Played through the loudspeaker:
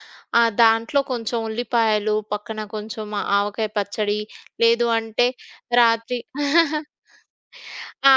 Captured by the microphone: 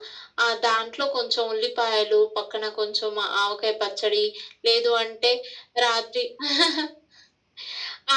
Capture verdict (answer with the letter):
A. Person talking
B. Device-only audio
B